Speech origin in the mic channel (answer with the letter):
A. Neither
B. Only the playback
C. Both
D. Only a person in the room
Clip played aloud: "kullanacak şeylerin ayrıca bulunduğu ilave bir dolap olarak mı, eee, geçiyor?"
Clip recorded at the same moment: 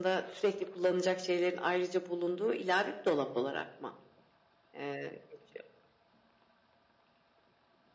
B